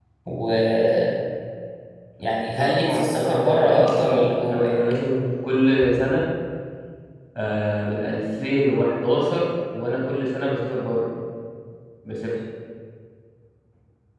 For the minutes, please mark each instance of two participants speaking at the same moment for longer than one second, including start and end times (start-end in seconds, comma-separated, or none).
2.6-4.8